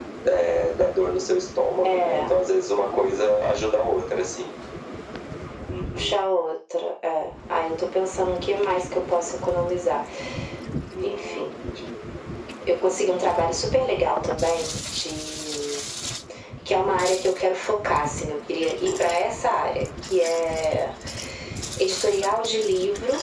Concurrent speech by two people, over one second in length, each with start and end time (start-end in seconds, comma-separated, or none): none